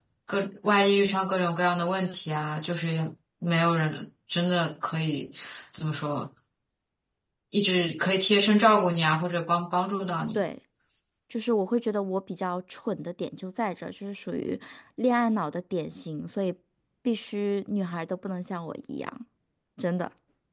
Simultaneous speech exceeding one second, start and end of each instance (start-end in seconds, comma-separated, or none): none